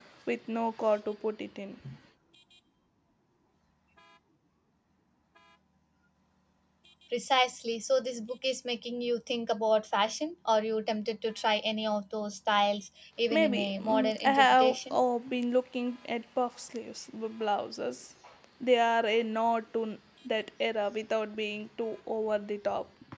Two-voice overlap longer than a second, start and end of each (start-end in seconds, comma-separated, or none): 13.3-14.9